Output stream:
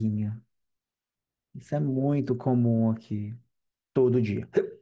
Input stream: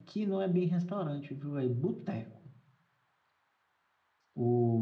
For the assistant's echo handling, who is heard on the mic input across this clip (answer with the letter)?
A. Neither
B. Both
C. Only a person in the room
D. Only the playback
C